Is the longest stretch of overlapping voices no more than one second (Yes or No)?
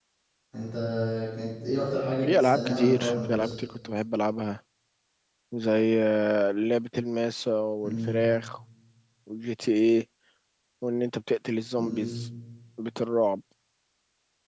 No